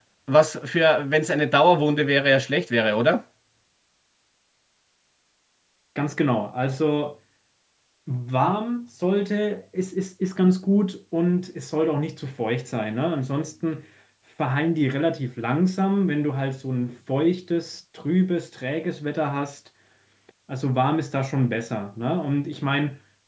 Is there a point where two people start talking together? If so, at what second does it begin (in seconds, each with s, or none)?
none